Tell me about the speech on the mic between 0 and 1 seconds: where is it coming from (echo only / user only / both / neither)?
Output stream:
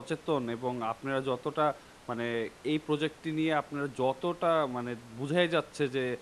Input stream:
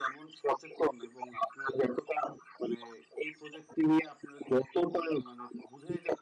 echo only